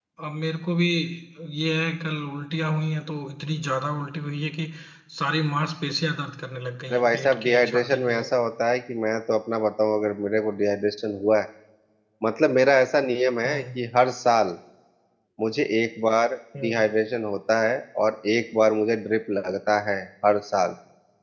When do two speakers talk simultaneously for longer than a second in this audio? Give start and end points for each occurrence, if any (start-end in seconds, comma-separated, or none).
6.9-8.2